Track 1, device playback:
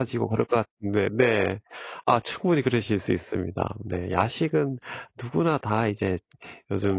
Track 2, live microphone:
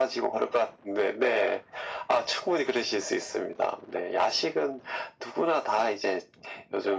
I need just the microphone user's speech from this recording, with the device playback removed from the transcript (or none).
none